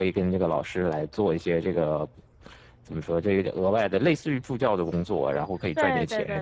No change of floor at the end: No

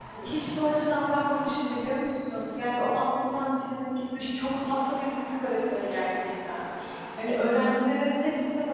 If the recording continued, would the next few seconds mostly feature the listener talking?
No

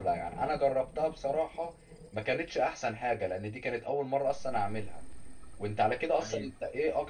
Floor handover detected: No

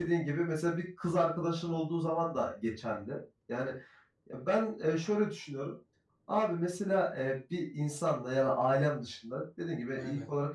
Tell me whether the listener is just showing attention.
Yes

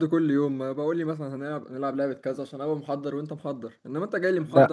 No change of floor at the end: No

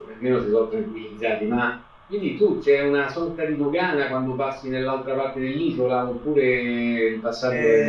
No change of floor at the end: No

